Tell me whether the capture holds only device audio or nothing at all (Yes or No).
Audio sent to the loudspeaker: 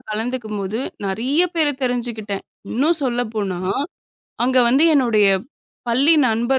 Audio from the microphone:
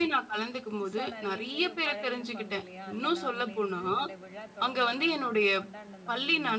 No